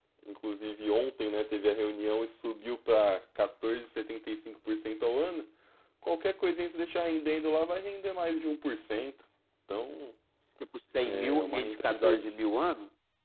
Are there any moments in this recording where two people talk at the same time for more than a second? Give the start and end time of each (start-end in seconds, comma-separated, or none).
11.0-12.3